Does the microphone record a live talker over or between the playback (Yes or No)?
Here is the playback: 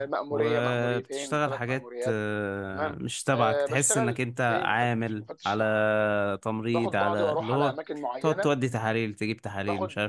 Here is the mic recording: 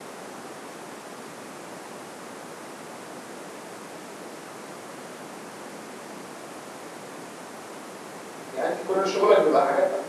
Yes